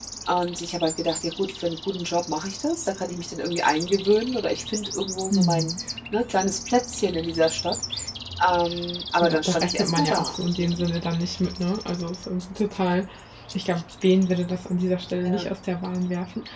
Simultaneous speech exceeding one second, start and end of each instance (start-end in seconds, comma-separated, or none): 9.2-10.7